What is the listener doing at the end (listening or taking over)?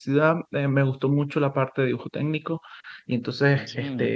listening